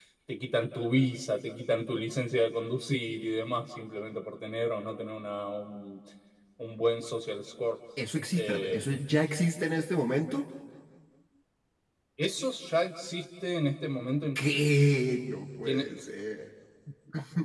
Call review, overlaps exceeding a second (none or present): none